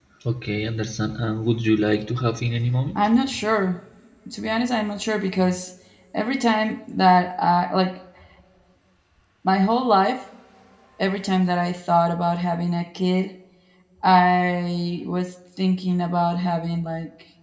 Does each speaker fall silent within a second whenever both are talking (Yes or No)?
Yes